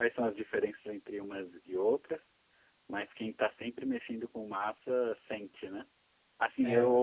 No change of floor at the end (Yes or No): Yes